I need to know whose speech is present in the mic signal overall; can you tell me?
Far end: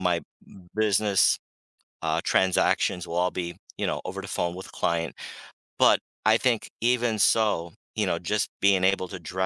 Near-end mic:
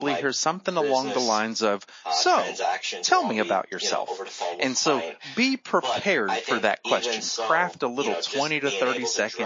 both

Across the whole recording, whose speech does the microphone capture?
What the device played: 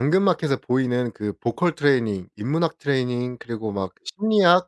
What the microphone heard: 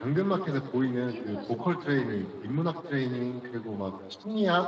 both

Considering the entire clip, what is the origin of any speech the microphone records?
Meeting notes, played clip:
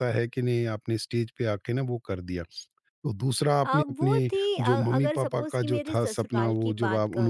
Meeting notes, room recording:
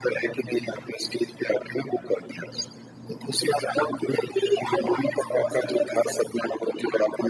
echo only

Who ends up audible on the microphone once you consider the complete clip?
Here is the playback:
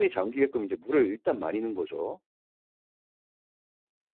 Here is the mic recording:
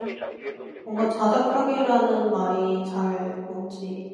both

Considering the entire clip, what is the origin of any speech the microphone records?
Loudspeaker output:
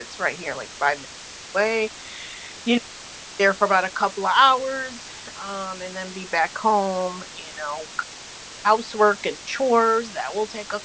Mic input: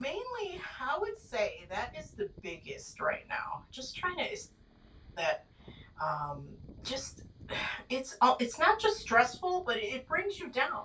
user only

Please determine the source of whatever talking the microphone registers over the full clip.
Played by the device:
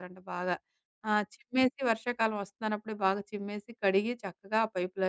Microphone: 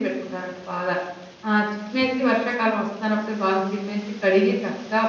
echo only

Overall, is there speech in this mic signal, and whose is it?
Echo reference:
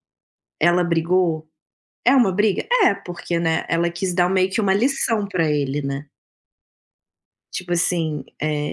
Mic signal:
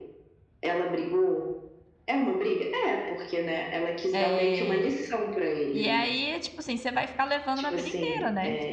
both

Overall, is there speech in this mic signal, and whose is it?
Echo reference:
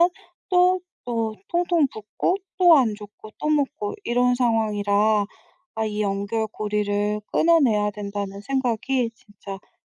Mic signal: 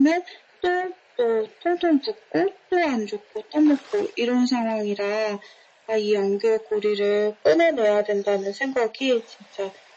echo only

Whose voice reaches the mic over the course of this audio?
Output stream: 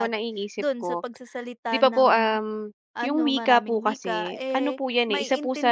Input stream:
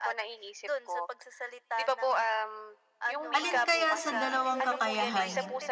both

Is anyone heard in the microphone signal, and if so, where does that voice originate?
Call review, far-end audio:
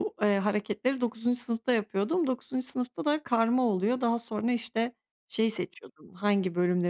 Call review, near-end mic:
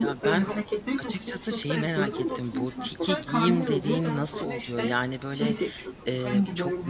both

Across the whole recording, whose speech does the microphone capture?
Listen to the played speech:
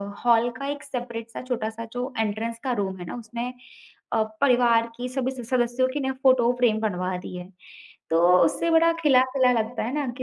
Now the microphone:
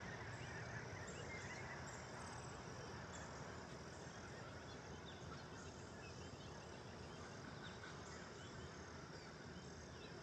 neither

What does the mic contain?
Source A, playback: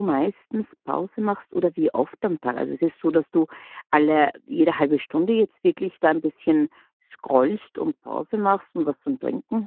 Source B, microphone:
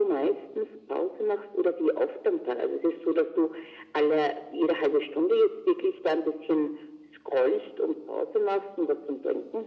echo only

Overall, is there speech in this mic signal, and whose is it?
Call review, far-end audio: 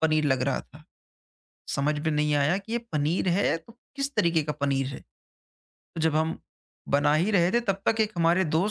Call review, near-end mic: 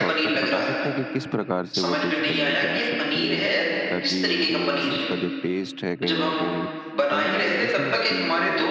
both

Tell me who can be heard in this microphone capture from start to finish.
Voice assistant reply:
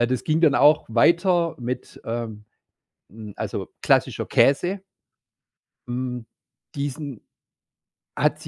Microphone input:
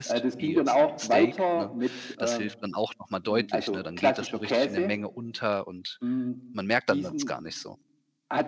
both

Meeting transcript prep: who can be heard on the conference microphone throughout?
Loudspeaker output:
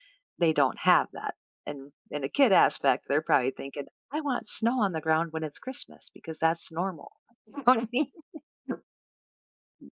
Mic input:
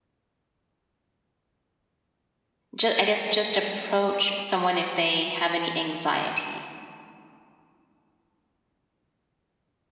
user only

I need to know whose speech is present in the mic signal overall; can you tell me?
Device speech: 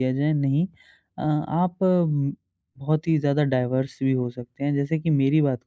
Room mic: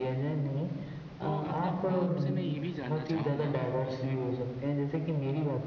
both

